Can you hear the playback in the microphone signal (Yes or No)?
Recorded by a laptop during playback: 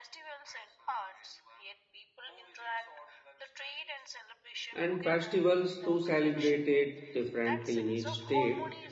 Yes